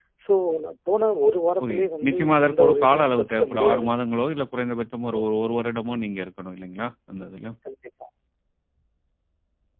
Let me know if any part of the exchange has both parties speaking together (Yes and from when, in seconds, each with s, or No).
Yes, from 1.6 s